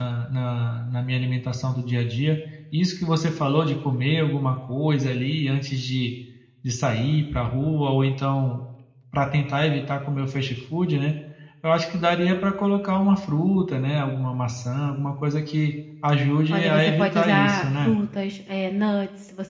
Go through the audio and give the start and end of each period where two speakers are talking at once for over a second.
16.5-17.9

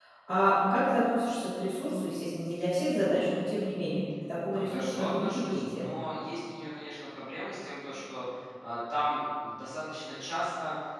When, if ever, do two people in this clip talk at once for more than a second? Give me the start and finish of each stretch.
4.5-5.9

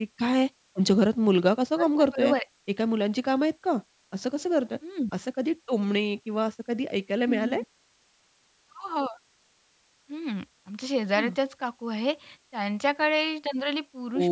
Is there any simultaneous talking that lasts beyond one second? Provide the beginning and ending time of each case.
none

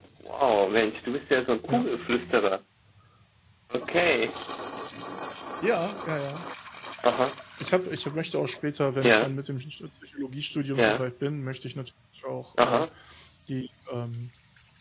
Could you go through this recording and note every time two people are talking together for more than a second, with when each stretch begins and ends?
none

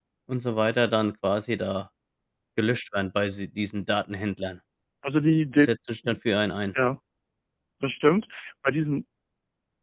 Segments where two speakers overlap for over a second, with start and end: none

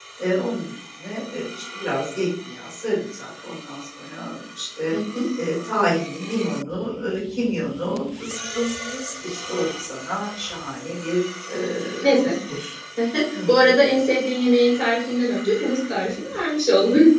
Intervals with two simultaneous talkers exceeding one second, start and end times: none

